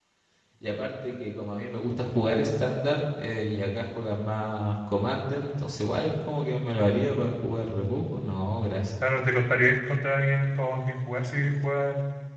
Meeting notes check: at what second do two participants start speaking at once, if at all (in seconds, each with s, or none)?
none